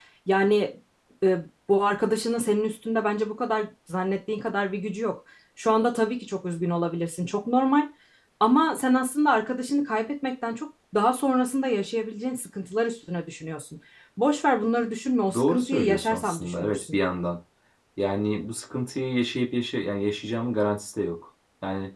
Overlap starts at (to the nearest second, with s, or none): 15 s